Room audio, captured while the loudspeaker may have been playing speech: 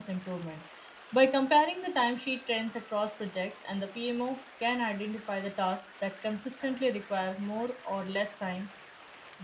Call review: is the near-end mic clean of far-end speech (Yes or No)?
Yes